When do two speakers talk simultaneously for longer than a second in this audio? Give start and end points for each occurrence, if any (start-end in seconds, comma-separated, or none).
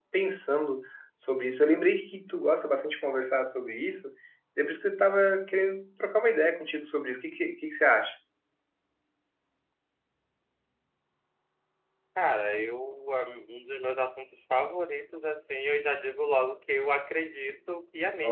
none